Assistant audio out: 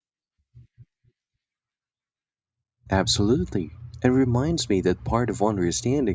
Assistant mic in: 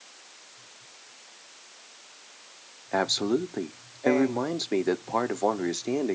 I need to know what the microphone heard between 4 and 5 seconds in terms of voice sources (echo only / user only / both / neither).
both